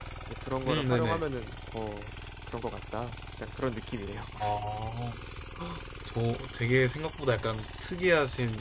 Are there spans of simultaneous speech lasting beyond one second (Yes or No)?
No